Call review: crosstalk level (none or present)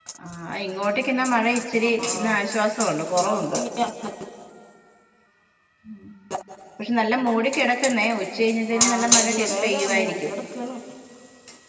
present